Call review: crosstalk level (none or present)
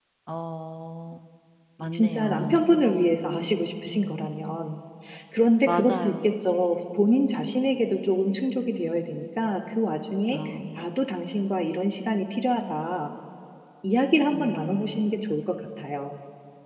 present